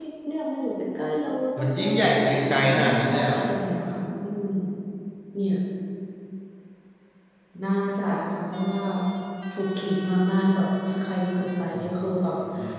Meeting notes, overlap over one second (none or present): present